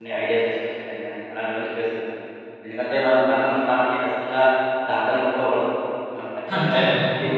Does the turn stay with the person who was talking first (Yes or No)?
Yes